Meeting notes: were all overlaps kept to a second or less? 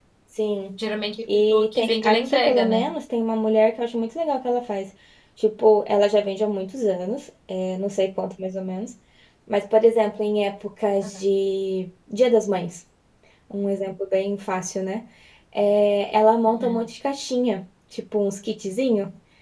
No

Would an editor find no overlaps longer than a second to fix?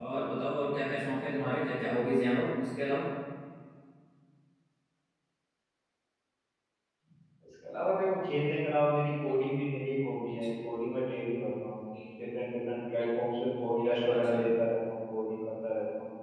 Yes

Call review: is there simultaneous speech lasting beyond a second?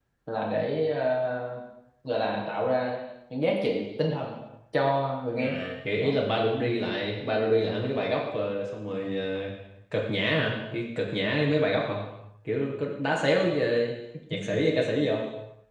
No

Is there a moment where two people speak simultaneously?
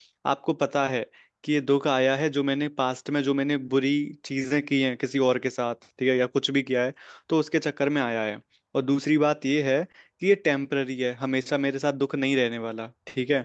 No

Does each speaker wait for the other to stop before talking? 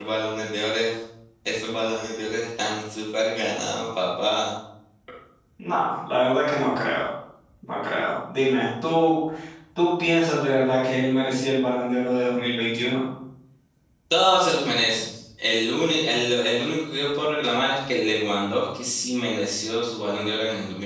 Yes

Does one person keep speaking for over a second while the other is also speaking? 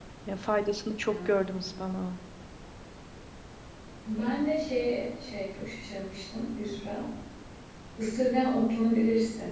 No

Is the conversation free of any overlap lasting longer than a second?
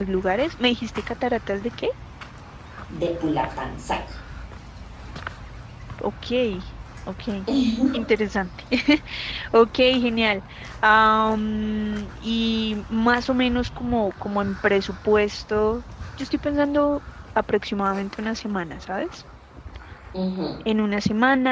Yes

